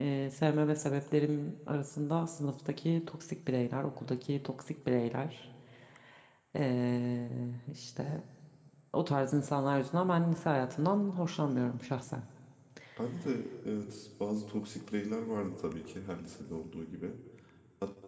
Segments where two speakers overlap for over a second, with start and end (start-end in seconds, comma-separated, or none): none